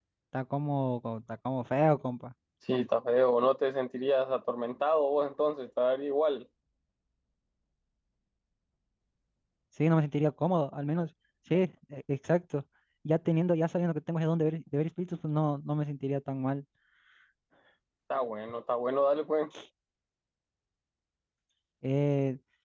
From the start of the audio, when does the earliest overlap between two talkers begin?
none

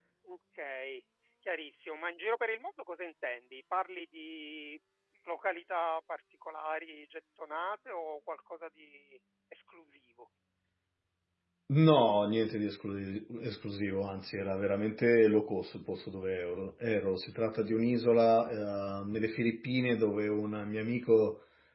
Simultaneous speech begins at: none

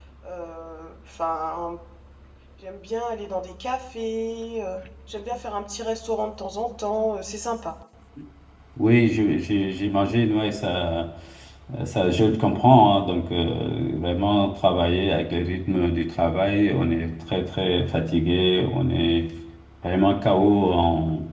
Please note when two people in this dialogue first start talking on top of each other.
none

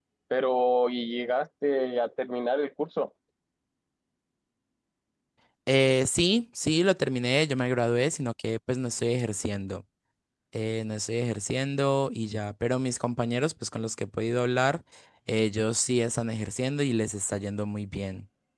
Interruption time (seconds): none

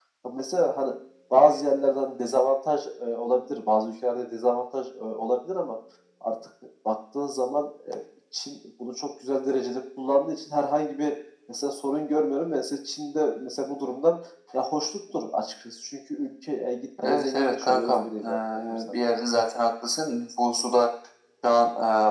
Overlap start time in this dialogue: 17.0 s

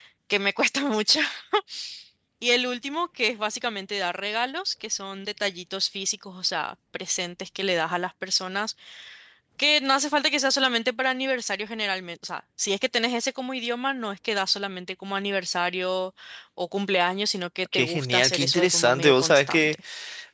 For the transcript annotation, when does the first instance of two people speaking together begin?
17.7 s

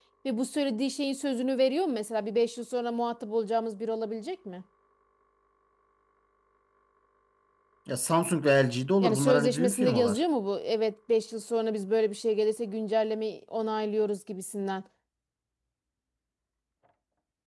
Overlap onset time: 9.0 s

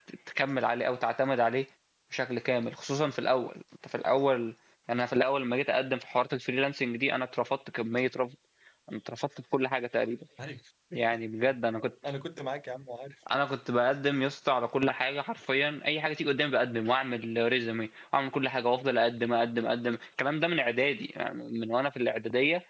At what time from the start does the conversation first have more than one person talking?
none

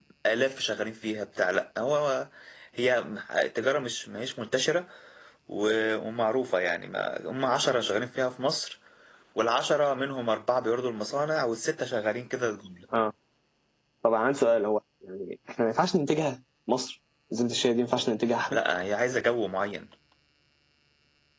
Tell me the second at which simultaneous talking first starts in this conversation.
none

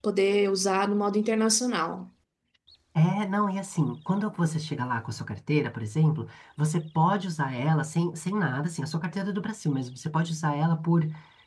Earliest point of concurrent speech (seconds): none

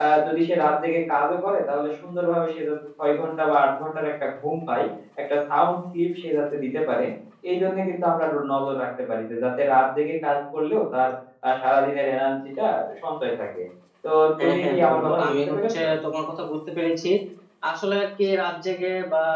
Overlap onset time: 14.4 s

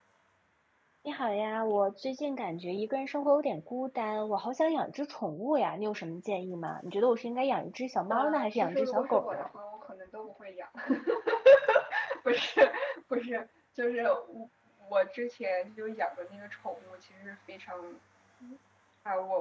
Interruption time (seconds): 8.1 s

